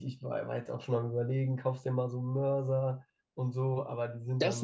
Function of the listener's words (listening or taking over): taking over